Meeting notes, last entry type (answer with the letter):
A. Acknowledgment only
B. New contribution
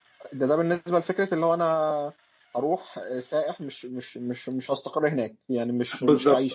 B